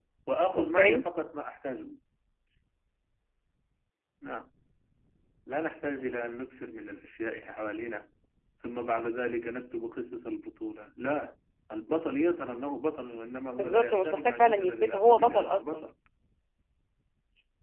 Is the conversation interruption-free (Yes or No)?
No